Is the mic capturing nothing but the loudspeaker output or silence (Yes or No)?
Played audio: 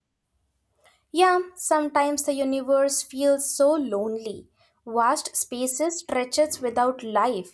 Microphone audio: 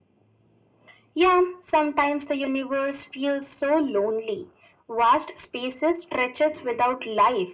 Yes